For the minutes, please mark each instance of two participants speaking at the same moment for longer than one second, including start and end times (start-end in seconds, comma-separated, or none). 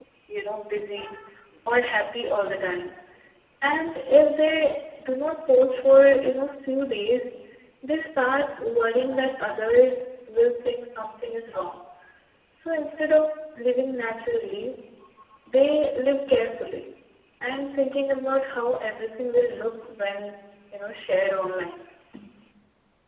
none